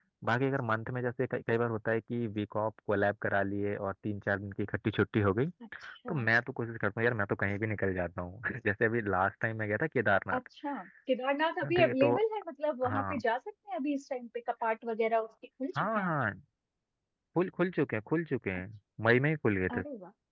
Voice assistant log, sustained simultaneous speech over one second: none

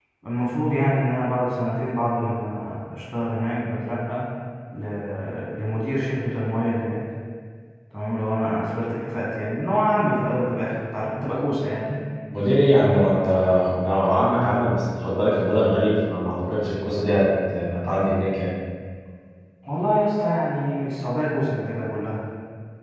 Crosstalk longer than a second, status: none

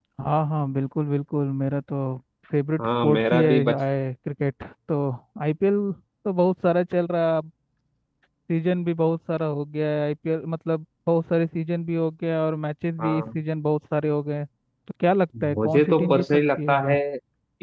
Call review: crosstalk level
present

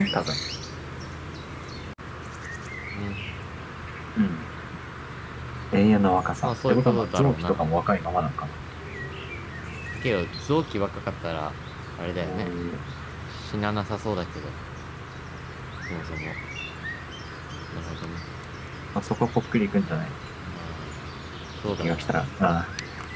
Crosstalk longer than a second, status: present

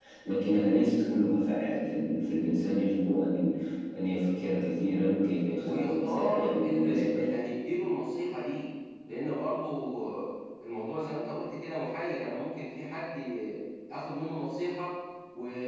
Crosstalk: present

